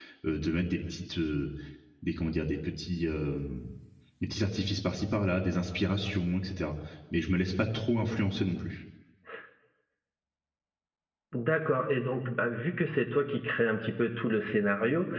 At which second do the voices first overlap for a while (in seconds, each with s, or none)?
none